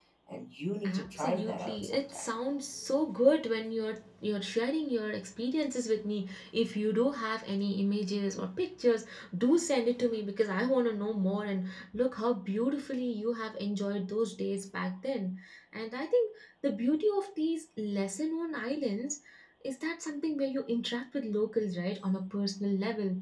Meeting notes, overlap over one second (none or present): present